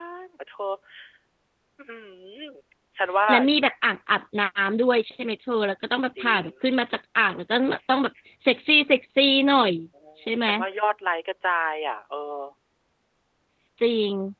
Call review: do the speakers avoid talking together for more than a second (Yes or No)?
Yes